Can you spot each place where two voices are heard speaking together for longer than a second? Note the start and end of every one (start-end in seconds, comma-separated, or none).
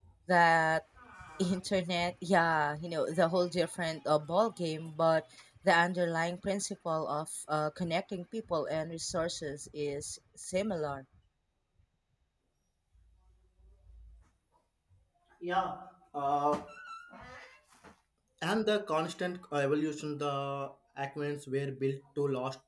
none